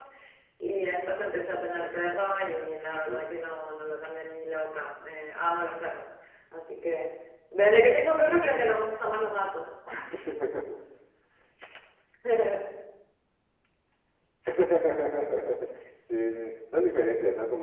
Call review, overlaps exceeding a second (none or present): none